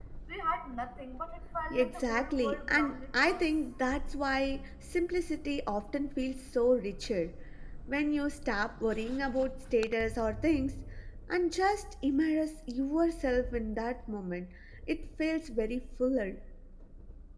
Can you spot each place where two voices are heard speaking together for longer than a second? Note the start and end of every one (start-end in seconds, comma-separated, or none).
1.7-3.4